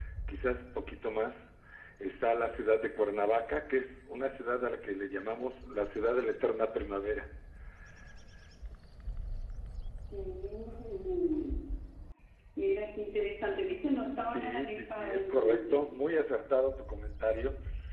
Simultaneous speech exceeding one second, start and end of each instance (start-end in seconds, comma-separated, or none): 14.2-15.8